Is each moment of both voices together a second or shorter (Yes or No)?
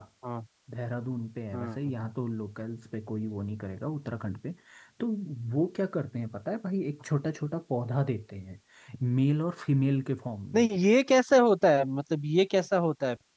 Yes